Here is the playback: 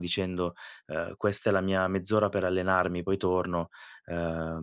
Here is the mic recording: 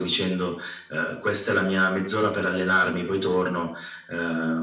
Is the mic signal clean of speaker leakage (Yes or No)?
No